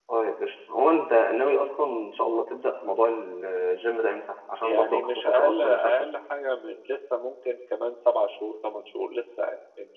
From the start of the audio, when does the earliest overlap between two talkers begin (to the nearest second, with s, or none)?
5 s